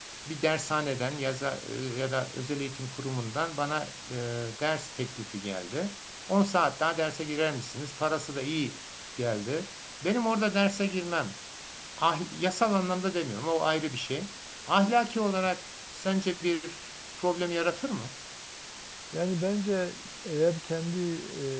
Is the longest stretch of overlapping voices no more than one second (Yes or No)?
Yes